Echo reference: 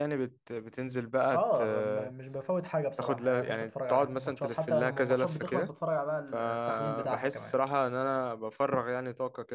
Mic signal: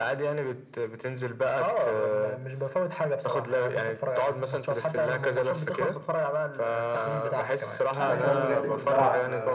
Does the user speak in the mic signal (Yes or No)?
Yes